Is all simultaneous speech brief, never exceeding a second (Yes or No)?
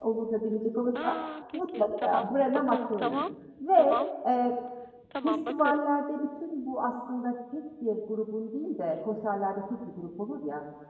No